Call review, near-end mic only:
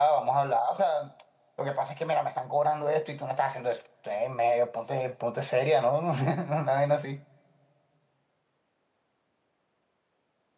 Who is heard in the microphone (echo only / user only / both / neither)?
user only